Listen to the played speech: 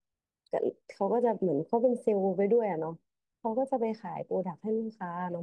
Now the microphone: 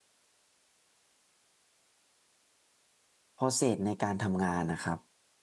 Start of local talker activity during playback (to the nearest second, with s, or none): 3 s